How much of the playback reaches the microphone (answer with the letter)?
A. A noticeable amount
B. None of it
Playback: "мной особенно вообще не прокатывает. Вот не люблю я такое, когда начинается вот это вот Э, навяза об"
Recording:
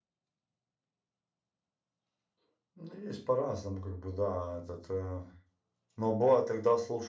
B